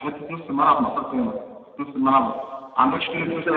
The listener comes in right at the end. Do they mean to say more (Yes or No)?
Yes